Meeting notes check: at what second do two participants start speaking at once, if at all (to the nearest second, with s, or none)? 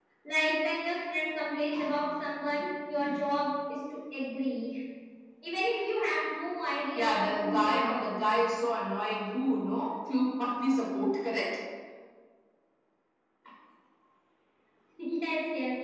7 s